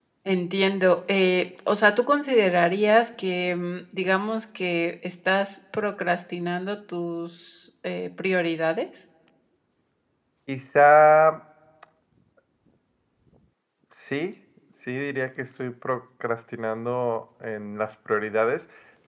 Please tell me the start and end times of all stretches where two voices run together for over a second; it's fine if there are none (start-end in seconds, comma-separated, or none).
none